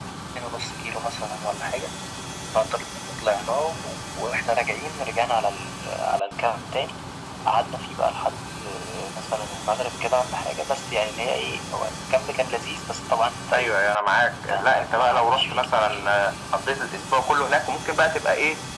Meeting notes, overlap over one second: present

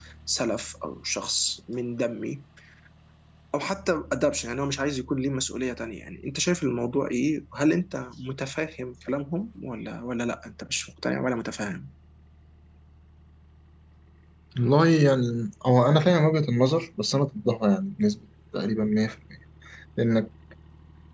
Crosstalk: none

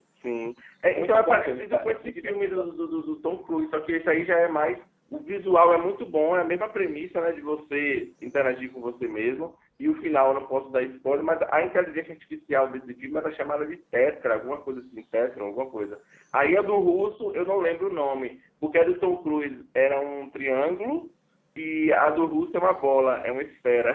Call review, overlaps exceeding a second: present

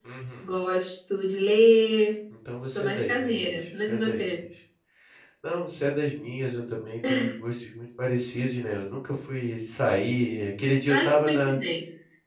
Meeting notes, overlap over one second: present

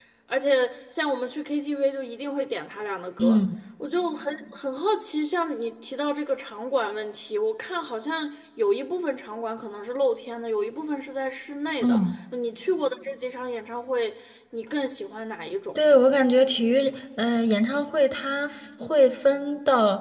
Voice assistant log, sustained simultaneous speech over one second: none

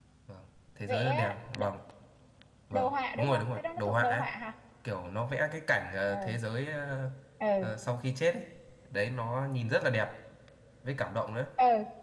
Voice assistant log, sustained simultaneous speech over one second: present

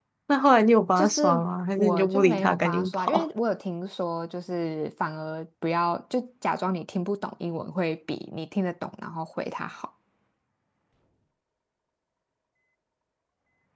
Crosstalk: present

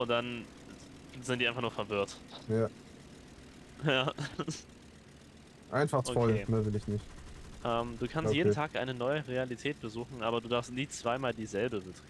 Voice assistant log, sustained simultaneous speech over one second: none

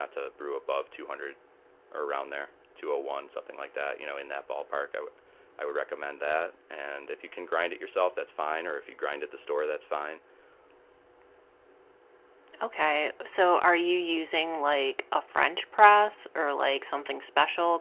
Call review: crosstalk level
none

